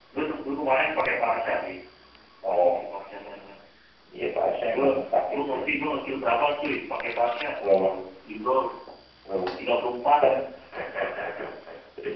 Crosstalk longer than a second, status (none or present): none